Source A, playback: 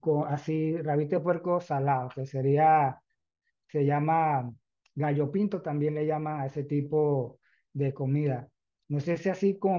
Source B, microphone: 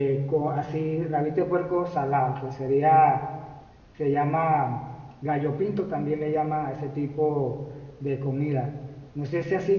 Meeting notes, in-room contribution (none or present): none